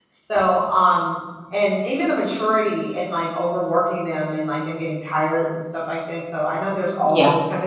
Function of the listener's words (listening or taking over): listening